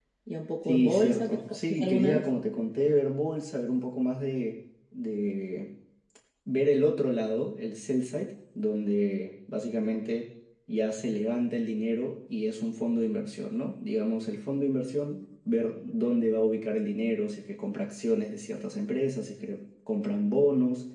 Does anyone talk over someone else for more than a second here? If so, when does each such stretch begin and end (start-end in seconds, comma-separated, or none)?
0.7-2.3